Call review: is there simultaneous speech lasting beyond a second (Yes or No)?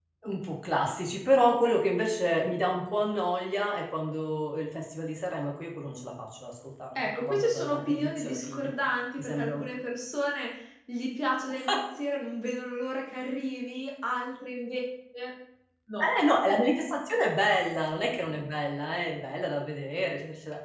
Yes